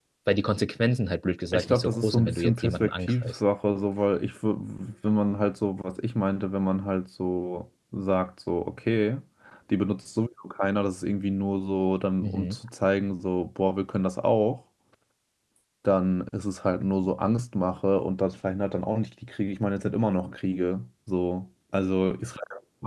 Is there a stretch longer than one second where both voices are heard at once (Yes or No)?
Yes